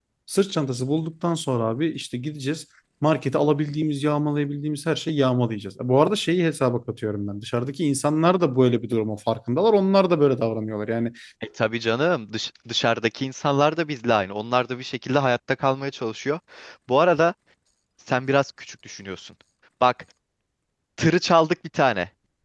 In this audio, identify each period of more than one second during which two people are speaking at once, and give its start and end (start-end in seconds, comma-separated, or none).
none